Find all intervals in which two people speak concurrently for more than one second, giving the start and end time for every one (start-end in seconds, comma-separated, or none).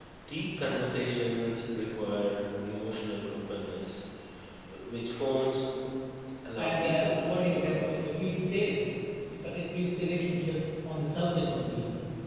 6.6-8.1